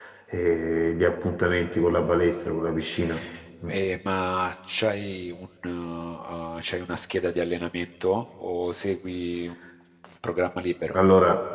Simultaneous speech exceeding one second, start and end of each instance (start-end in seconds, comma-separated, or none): none